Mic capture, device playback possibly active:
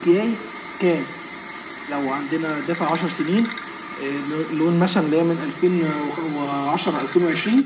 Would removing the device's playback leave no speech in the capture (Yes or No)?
Yes